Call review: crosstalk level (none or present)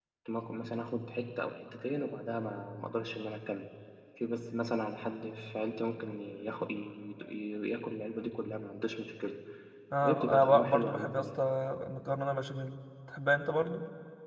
present